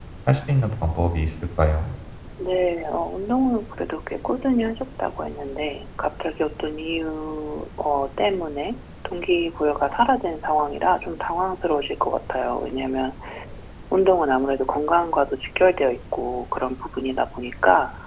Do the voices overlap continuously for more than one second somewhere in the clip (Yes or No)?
No